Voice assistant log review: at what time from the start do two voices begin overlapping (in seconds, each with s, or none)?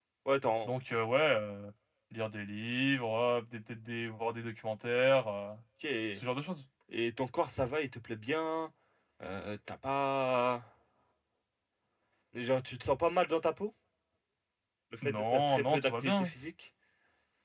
15.0 s